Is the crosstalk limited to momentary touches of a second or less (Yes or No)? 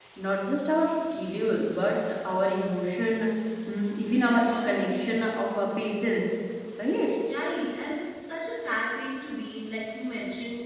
Yes